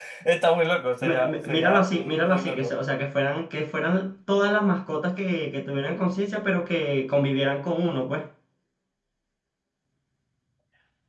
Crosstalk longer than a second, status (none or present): present